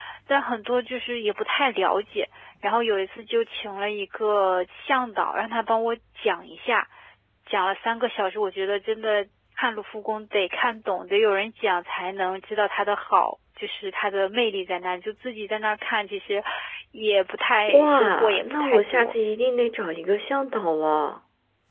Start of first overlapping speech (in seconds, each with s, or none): 17.7 s